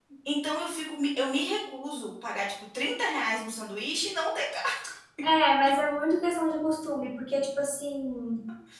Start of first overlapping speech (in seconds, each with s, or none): none